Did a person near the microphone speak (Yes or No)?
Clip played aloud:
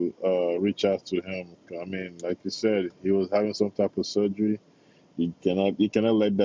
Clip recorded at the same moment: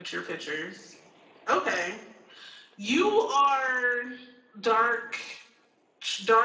Yes